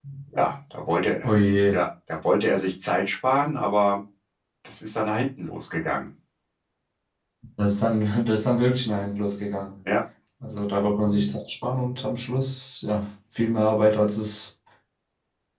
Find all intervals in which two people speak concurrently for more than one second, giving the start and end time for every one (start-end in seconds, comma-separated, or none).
none